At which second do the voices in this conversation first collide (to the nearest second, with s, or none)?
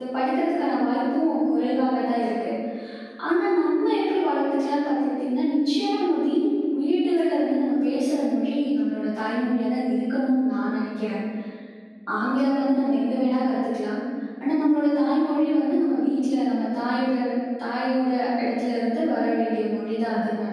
none